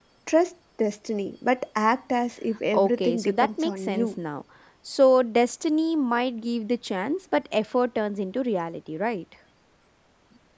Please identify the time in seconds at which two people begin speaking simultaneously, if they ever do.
3 s

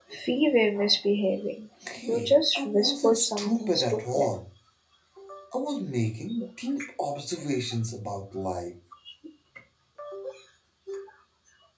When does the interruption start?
2 s

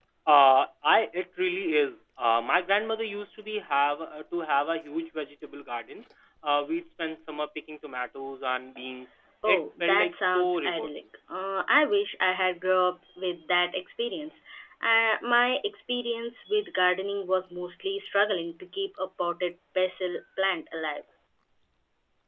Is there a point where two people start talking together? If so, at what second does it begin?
9 s

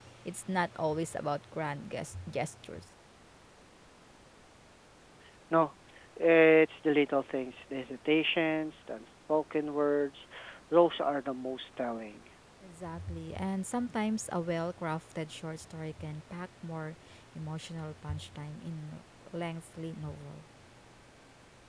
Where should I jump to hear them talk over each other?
none

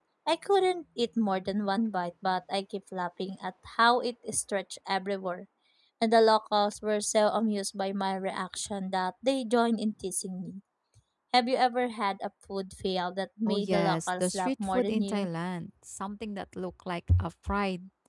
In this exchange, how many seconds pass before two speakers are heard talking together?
13 s

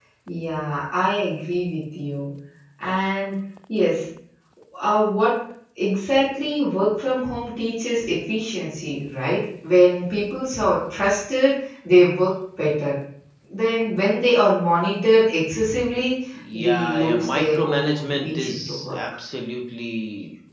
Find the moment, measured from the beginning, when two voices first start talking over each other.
16 s

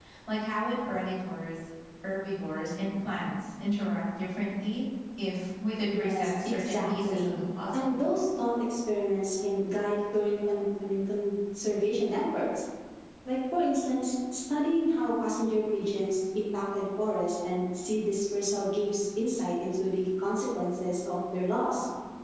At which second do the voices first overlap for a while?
6 s

